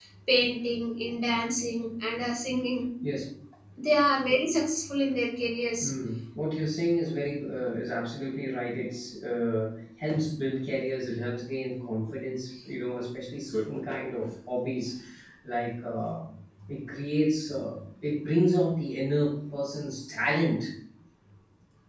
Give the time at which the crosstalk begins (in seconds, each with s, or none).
none